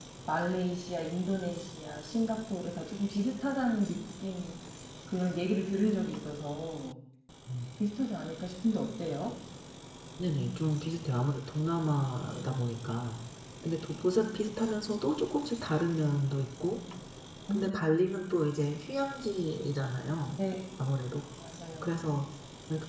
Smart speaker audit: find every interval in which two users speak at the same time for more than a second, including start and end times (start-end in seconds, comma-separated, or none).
none